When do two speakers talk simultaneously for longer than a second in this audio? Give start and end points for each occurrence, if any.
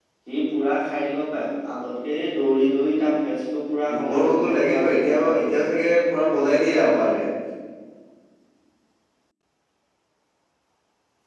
3.9-5.6

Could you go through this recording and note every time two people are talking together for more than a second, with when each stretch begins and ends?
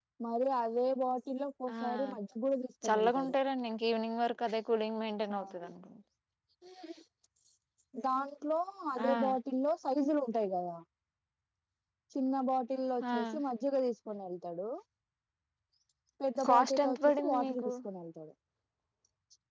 16.5-17.7

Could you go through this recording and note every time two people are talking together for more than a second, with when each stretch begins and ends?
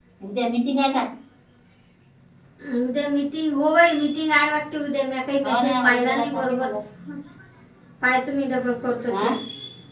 5.4-6.7

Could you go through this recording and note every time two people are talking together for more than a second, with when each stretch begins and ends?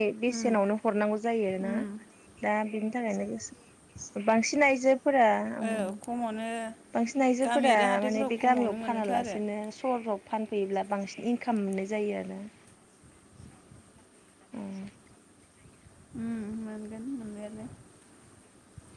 7.5-9.4

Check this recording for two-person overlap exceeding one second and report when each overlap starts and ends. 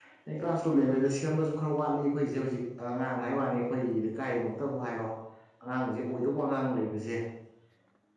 none

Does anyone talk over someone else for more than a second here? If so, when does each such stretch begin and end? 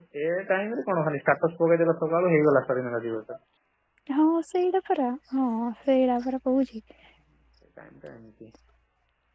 none

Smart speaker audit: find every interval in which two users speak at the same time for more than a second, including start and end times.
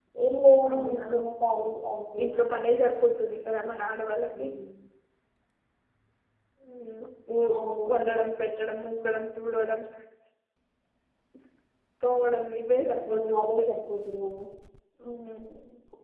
none

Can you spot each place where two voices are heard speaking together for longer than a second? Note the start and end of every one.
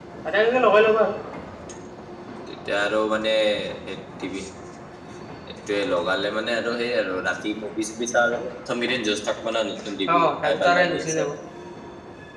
9.8-11.3

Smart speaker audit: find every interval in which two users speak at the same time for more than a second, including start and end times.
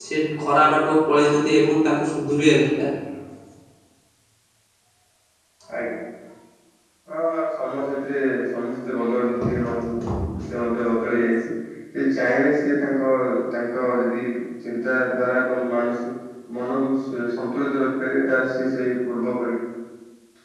none

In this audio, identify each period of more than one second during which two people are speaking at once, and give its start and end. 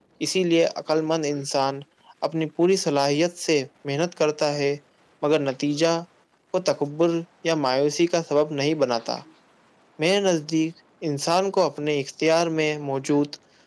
none

